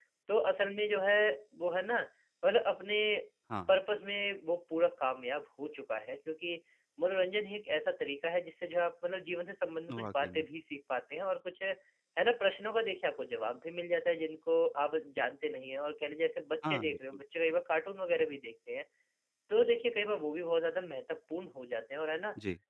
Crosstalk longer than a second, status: none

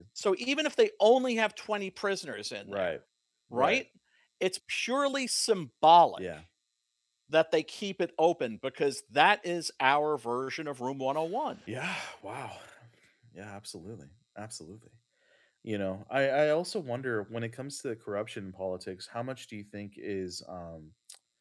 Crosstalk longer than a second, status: none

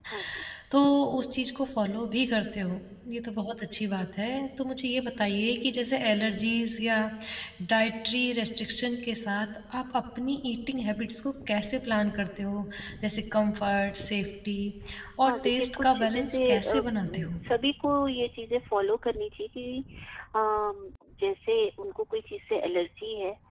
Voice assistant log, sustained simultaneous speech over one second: present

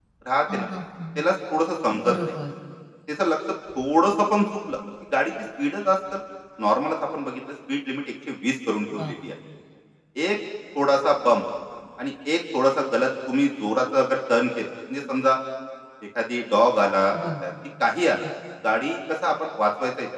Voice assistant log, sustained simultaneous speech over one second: none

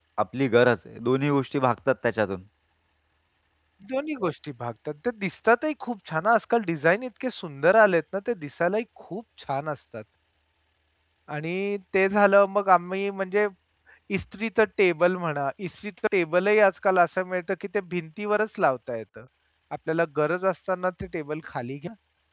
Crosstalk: none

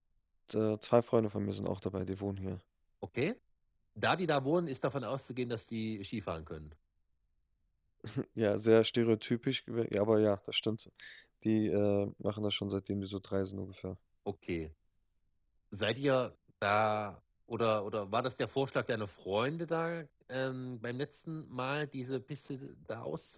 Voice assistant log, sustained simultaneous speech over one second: none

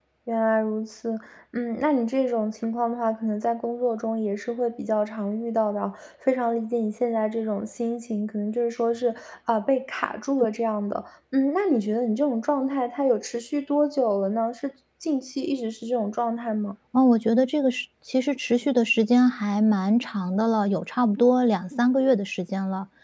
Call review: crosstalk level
none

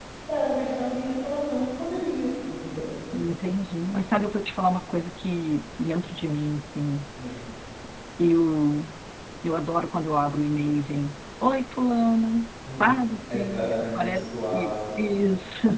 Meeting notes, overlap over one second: present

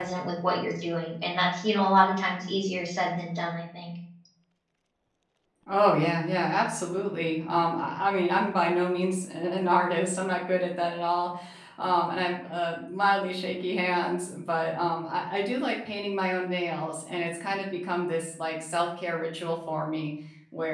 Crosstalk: none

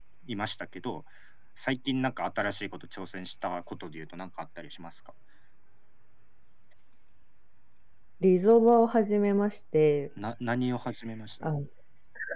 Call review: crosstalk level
none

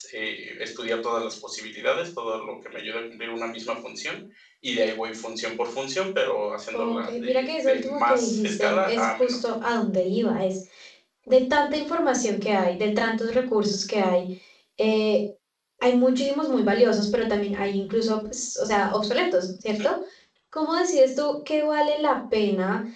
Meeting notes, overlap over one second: present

